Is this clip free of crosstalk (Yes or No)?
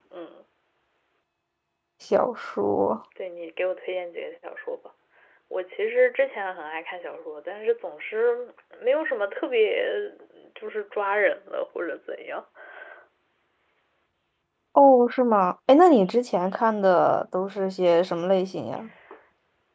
Yes